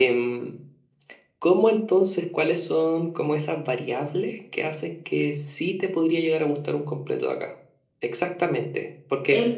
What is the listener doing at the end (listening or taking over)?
listening